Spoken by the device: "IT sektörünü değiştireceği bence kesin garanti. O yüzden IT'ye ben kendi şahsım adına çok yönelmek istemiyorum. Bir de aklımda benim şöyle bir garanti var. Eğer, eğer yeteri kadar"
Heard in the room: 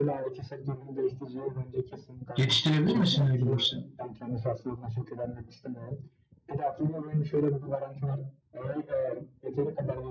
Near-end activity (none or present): present